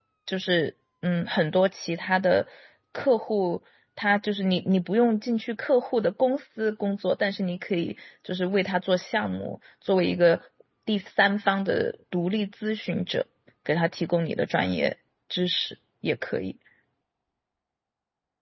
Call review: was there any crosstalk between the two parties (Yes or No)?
No